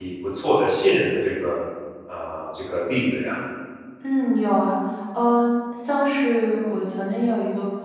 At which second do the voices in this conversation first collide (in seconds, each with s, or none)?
none